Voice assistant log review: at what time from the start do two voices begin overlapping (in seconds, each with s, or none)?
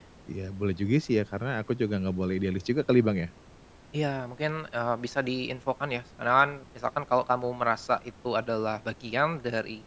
none